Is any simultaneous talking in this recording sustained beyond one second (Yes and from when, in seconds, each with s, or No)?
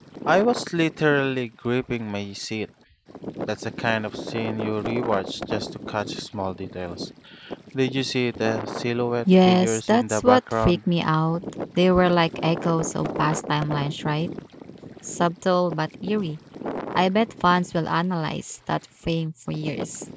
Yes, from 9.2 s